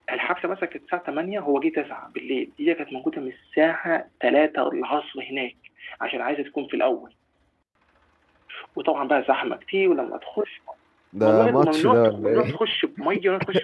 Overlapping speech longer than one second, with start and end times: 11.2-12.6

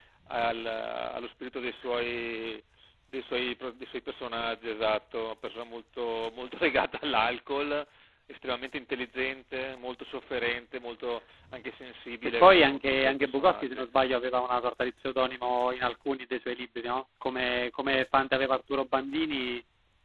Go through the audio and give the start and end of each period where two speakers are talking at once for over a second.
12.2-13.8

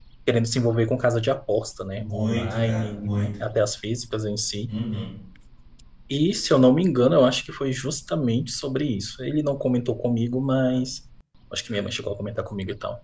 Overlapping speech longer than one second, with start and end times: 1.9-3.3

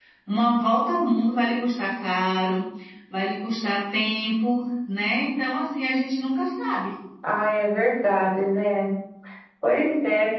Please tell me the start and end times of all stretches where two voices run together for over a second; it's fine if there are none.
none

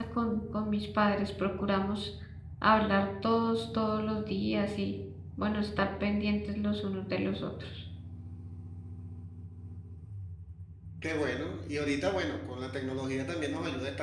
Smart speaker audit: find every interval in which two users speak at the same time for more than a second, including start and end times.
none

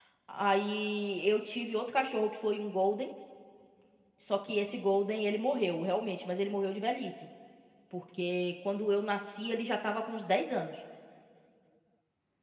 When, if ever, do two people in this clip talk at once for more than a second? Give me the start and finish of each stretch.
none

